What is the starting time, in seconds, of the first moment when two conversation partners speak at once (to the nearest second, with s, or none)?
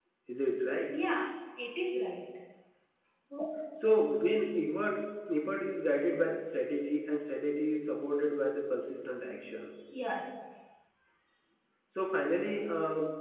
none